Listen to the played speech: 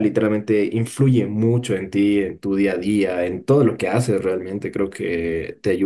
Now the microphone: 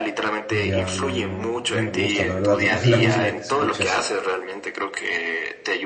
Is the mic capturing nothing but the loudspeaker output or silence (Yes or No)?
No